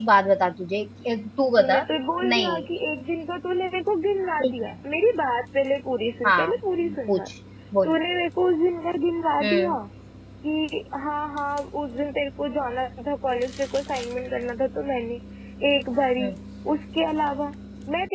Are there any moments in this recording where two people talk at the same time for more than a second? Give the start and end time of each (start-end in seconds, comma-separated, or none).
none